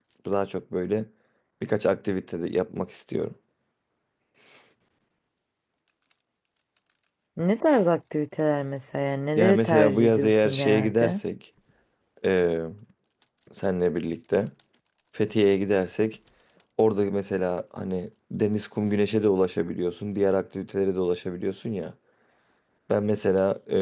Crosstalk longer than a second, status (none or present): present